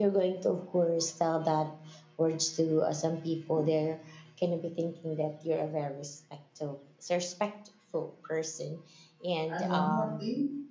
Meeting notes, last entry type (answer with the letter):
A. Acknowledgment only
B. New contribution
B